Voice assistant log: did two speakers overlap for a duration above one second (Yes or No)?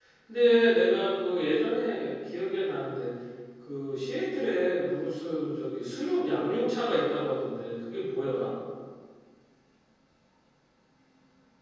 No